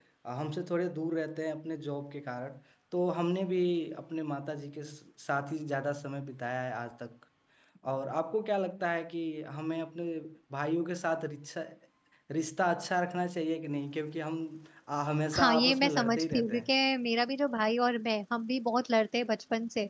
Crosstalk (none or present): present